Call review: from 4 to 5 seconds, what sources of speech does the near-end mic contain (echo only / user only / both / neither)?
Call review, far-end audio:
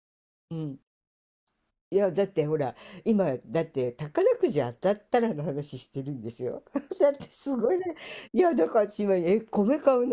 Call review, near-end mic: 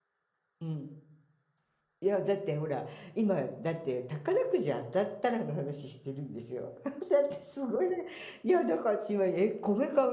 echo only